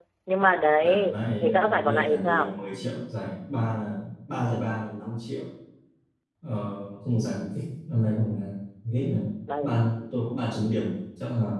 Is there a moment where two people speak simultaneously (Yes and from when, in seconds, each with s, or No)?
Yes, from 0.8 s